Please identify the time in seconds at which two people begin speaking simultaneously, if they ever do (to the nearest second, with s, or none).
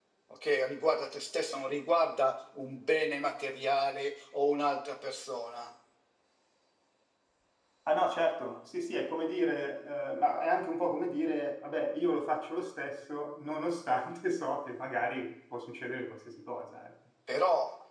none